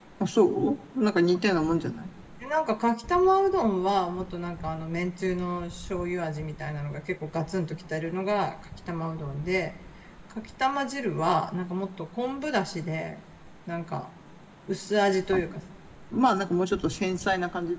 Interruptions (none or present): none